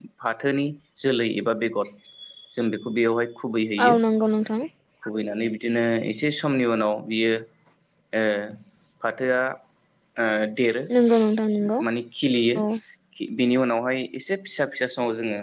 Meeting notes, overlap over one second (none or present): none